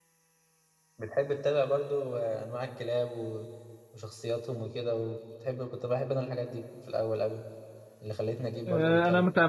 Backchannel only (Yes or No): No